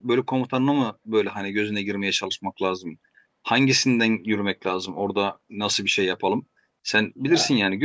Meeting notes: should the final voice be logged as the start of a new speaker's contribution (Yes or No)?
No